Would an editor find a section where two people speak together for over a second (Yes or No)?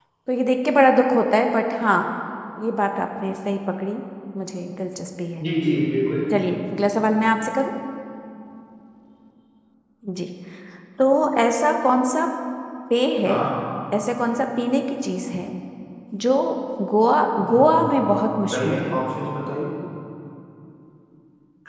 Yes